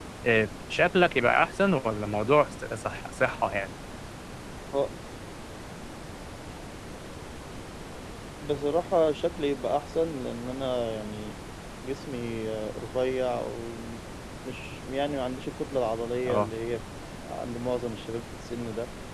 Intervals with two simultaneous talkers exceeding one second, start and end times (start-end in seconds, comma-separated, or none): none